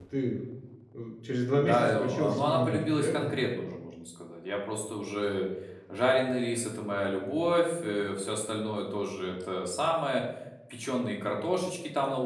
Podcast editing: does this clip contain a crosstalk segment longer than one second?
Yes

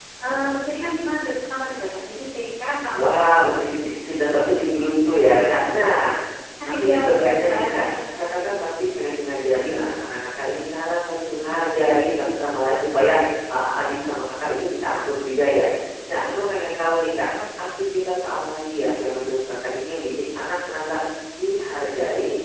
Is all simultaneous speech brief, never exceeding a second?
No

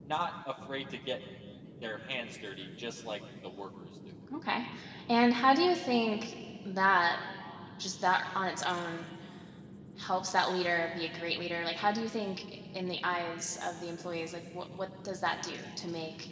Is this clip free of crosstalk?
Yes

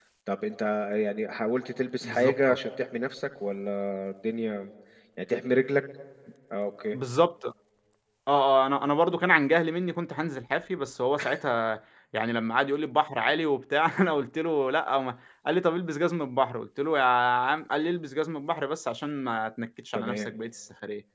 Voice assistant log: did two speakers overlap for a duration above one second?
No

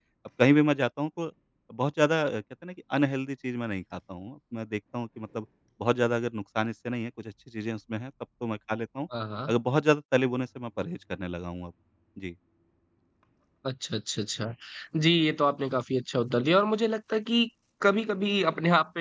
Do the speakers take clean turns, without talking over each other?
Yes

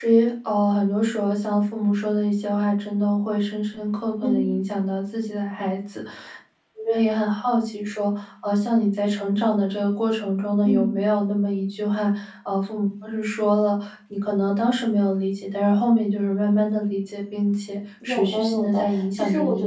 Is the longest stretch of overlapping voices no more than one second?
No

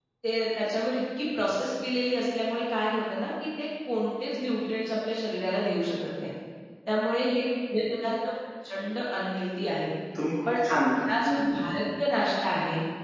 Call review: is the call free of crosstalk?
No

